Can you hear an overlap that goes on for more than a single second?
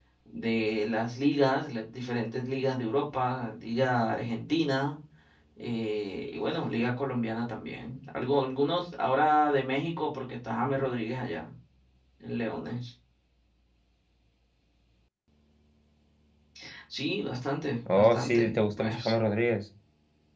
Yes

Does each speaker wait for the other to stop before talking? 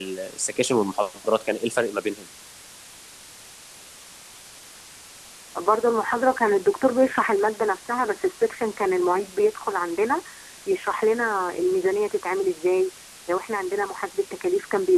Yes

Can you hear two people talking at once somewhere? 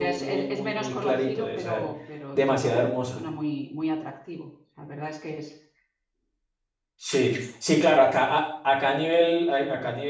Yes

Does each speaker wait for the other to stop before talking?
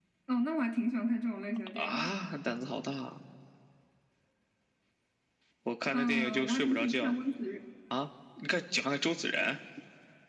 No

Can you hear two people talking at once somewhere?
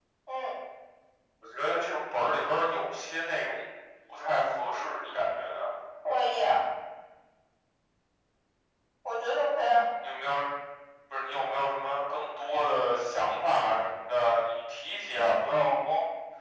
No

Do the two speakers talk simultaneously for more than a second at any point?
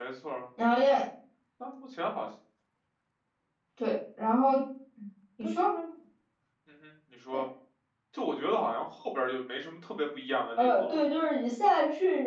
No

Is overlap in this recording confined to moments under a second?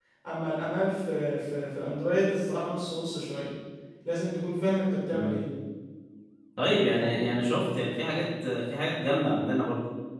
Yes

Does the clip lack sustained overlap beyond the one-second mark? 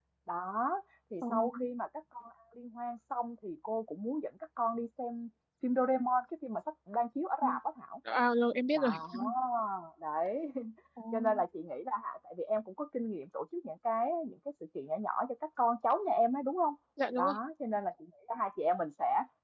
Yes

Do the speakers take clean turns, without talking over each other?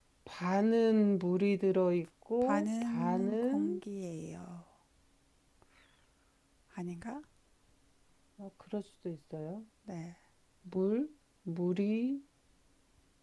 No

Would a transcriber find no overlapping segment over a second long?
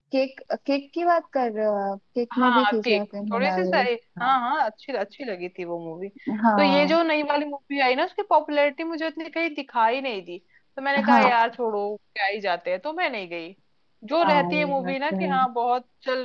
No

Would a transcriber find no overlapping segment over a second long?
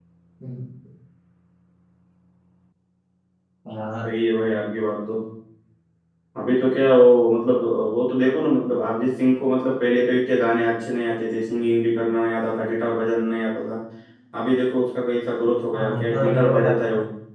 No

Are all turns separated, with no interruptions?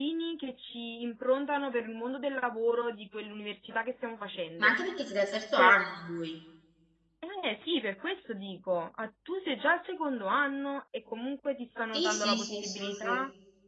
No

